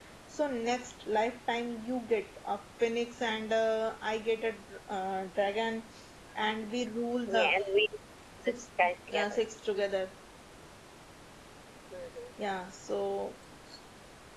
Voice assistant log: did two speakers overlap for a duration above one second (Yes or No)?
No